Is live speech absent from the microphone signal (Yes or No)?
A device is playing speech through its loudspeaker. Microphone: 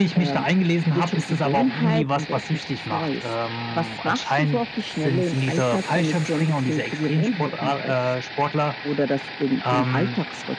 Yes